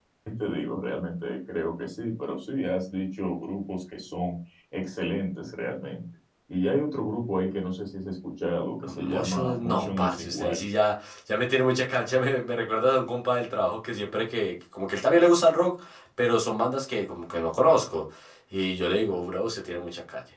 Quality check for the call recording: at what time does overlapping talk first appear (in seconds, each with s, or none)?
8.8 s